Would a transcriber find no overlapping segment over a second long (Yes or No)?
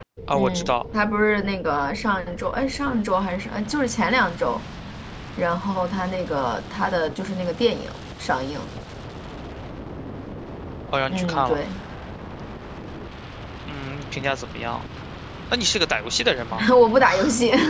Yes